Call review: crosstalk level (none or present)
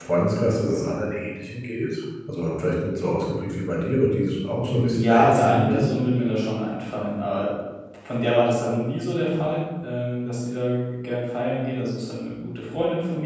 present